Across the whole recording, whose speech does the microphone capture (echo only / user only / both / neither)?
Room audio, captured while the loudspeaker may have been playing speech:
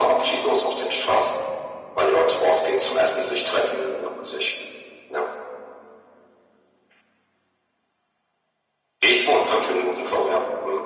echo only